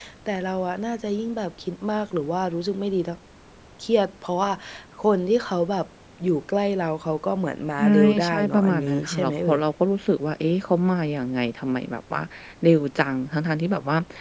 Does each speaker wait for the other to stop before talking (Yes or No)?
No